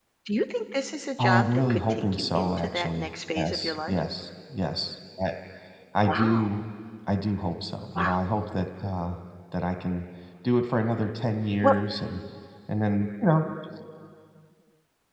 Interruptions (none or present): present